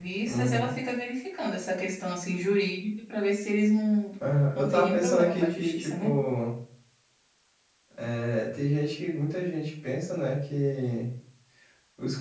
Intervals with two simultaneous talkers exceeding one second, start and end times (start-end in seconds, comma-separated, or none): 4.6-6.1